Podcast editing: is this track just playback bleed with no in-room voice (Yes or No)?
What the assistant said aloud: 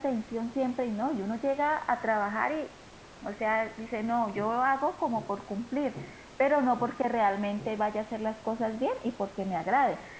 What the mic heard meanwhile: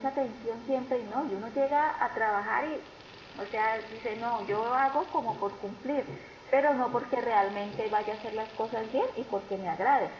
Yes